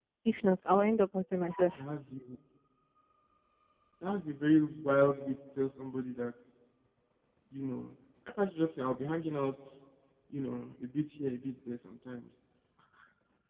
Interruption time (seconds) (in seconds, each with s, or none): none